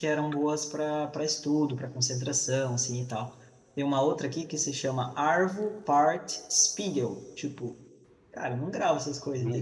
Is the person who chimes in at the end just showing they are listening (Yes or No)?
Yes